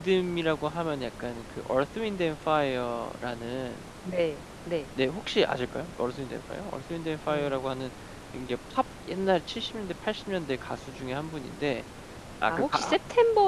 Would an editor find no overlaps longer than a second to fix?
Yes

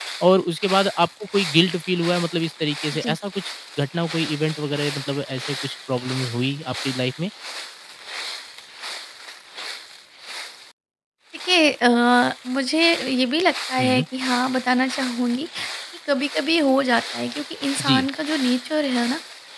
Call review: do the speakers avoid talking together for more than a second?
Yes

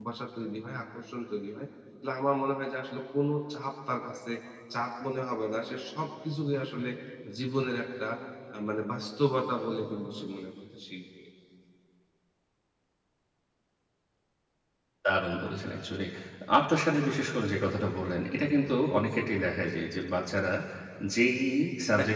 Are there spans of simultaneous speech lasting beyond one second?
No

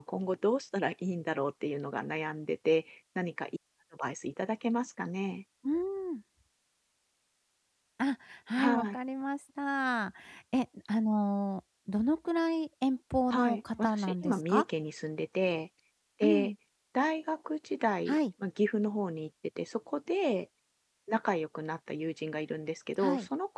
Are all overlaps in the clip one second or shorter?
No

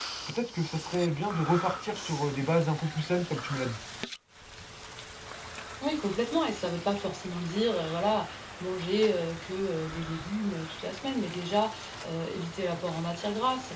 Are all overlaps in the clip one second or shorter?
Yes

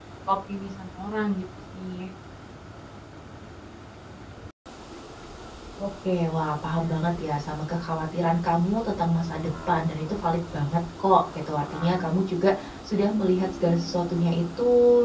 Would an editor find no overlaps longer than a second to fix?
Yes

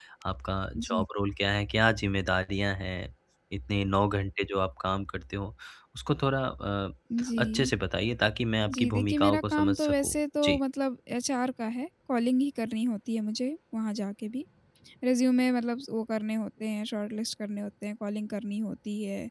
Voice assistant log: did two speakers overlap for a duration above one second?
Yes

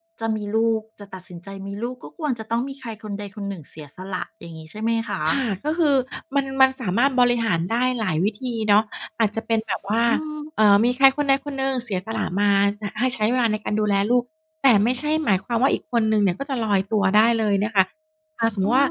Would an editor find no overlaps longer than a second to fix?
Yes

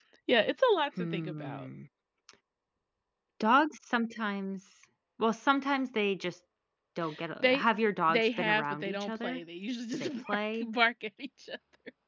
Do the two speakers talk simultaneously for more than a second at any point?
Yes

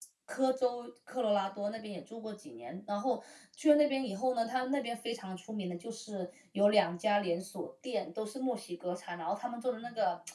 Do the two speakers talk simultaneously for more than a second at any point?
No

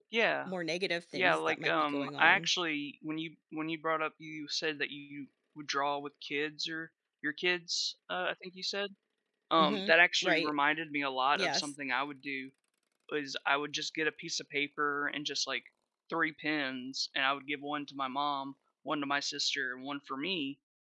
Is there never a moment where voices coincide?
No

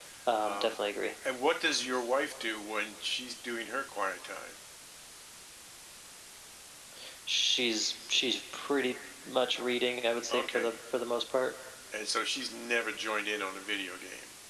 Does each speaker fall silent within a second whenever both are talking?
Yes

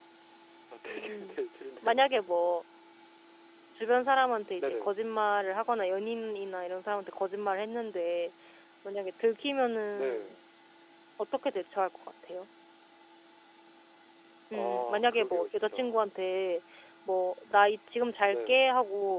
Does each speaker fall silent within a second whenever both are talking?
No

